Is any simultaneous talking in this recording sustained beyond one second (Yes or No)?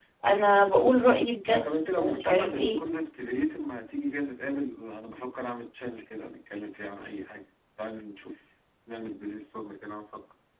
Yes